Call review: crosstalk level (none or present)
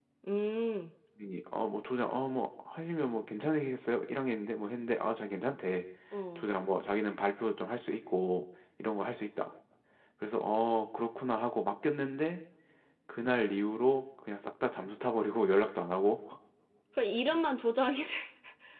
none